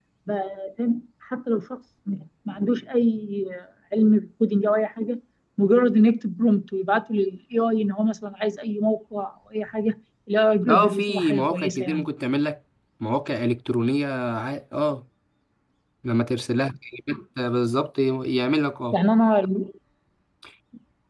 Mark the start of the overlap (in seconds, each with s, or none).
10.6 s